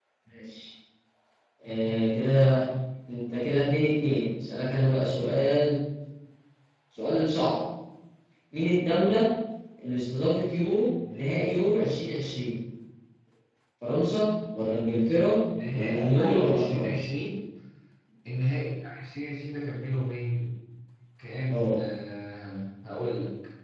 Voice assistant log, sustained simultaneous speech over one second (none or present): present